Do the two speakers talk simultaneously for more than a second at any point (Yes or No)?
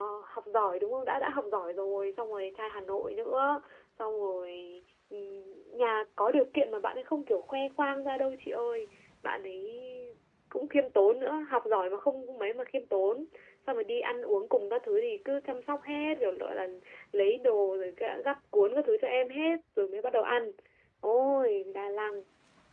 No